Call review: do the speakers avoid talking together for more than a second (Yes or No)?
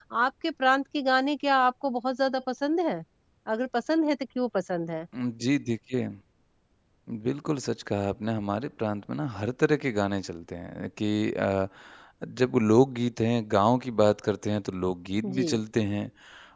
Yes